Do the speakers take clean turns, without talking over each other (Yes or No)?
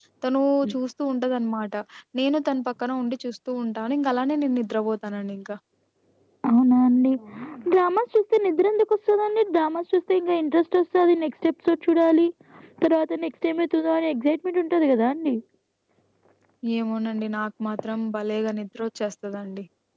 Yes